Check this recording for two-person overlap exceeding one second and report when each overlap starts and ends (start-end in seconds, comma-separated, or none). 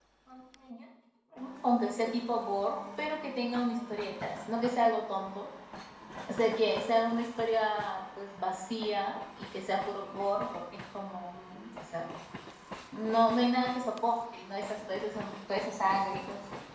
none